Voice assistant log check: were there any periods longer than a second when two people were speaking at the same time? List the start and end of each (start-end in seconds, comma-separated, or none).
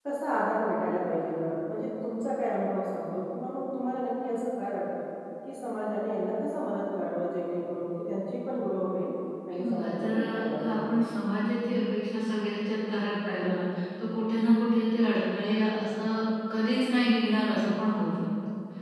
9.5-10.8